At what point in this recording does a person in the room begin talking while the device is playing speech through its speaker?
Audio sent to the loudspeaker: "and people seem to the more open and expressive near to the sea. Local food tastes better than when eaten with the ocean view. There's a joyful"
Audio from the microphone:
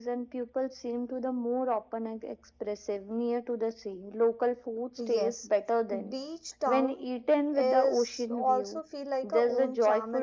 5.0 s

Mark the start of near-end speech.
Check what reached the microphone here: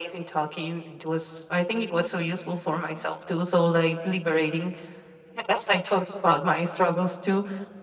none

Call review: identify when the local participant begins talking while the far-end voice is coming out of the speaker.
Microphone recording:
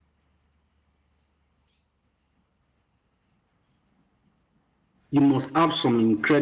5.1 s

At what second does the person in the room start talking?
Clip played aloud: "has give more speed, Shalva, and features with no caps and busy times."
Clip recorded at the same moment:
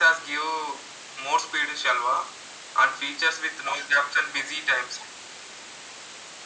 none

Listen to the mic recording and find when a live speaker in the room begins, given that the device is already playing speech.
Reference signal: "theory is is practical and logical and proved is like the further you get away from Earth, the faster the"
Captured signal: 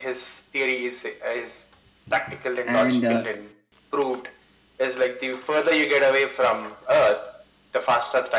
2.6 s

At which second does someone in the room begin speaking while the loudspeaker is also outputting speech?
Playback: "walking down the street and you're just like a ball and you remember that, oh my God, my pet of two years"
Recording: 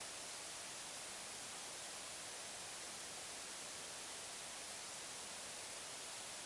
none

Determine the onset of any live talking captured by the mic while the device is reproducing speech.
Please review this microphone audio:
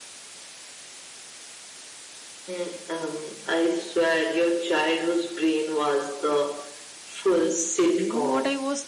7.9 s

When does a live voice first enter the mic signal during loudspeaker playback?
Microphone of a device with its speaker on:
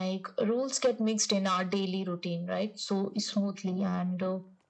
none

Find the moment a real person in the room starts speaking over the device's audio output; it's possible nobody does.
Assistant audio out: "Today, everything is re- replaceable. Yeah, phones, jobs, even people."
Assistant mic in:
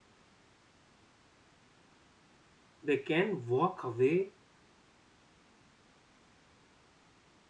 2.8 s

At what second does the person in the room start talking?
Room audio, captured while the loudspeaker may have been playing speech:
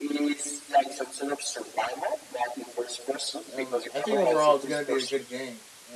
3.5 s

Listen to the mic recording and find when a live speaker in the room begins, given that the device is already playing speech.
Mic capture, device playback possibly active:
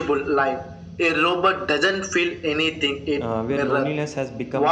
3.2 s

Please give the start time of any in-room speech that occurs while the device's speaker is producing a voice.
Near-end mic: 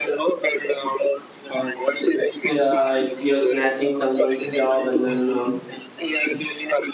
2.4 s

